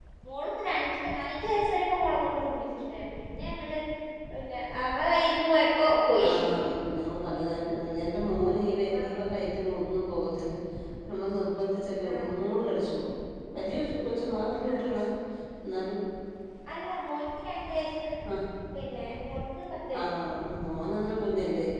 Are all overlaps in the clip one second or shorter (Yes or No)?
Yes